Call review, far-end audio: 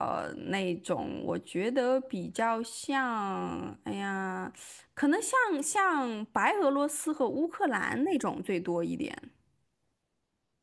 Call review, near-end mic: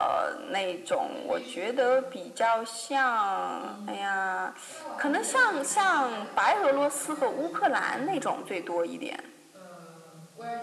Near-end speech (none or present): present